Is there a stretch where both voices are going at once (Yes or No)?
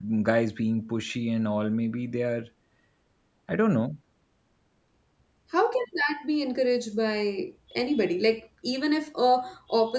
No